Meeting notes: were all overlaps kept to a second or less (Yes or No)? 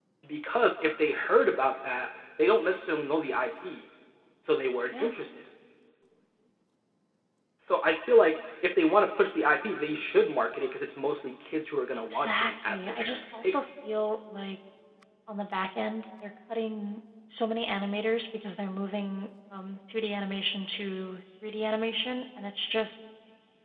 No